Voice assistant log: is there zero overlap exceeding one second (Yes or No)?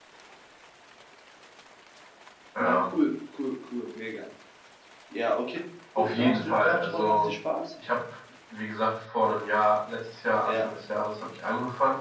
No